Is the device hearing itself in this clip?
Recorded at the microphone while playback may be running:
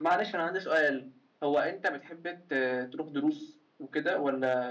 No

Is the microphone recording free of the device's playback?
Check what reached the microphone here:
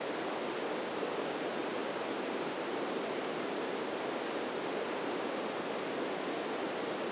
Yes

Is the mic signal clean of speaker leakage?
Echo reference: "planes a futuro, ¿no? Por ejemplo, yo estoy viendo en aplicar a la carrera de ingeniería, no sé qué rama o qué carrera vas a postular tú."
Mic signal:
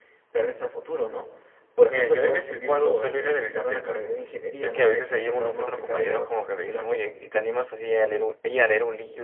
No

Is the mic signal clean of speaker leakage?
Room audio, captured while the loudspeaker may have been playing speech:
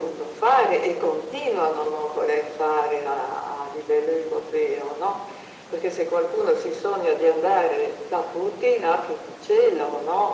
No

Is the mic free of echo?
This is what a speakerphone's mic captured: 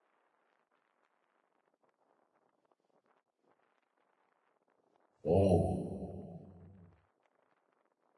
Yes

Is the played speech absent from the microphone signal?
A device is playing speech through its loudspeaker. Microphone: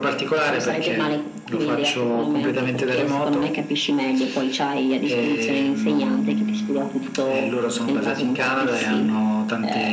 No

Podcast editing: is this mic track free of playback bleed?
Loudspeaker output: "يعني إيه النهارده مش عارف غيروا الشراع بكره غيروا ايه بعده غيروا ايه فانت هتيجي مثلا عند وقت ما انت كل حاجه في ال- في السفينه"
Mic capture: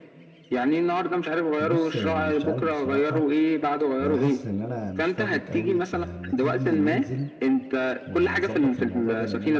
No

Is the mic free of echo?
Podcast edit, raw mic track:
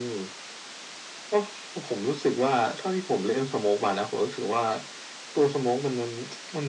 No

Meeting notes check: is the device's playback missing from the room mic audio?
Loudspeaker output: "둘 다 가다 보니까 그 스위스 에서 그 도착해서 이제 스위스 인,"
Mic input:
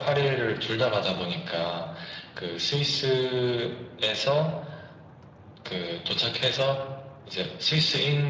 No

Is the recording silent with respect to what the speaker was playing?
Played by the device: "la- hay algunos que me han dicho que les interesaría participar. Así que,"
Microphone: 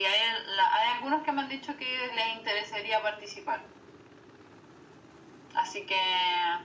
No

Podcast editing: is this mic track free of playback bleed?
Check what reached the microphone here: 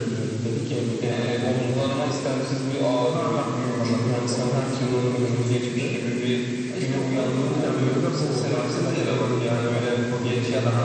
No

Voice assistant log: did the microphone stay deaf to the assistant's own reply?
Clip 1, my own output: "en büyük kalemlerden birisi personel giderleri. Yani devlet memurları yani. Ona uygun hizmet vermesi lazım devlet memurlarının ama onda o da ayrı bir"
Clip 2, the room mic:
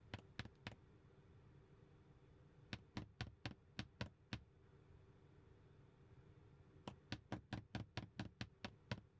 Yes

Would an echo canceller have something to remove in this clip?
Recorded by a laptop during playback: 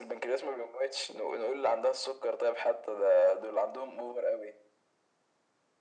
Yes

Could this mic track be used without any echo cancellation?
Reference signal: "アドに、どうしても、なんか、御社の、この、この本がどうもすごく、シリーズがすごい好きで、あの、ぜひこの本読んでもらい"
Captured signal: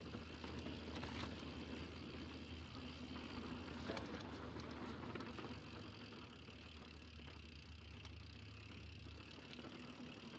Yes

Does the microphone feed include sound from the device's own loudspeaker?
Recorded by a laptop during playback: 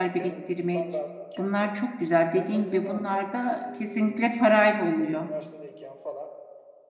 Yes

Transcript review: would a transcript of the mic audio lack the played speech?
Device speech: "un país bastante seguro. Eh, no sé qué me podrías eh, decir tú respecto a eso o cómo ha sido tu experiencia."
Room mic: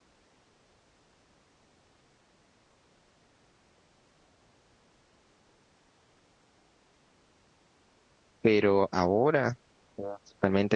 Yes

